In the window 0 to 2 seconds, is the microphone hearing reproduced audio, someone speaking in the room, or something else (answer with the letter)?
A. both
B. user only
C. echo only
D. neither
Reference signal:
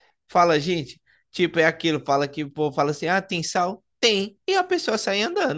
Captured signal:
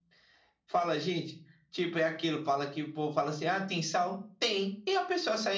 C